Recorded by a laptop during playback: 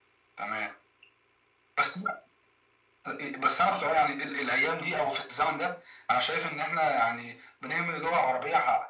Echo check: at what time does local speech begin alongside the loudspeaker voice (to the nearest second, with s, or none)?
none